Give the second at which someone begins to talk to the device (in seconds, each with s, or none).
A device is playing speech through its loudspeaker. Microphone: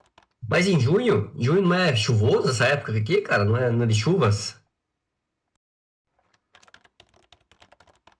0.5 s